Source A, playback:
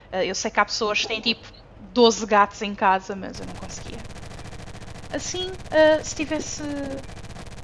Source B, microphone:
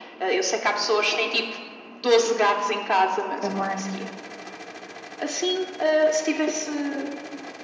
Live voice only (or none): também.